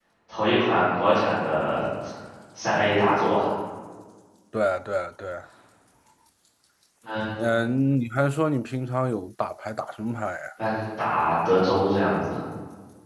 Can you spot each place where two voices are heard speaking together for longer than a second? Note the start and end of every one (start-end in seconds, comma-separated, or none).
none